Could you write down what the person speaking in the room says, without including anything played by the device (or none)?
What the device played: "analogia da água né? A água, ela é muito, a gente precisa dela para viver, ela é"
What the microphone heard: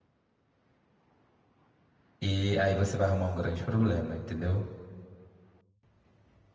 e aí você vai arrumar um grande problema, entendeu?